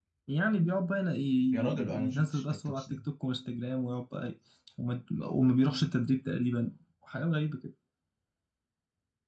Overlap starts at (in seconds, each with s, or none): 1.5 s